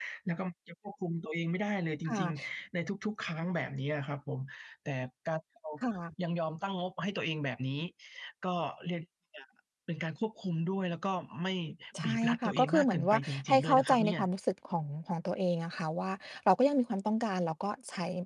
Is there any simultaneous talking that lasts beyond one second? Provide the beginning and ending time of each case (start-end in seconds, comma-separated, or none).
12.0-14.2